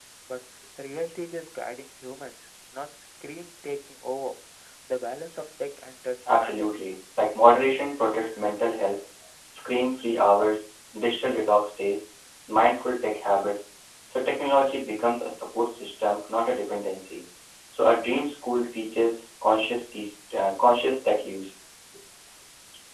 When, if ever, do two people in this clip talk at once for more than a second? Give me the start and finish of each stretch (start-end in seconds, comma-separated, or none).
none